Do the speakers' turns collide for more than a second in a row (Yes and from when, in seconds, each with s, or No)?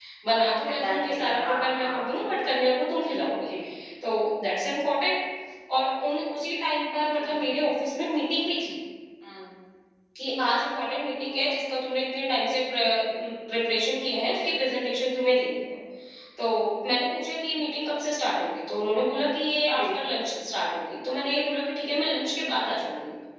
Yes, from 0.7 s